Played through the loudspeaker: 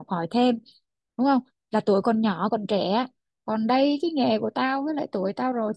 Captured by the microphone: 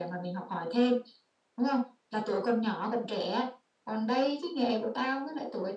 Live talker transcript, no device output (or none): none